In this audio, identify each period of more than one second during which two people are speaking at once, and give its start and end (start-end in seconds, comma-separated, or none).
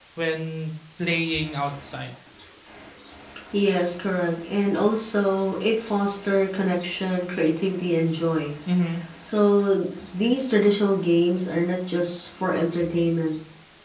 none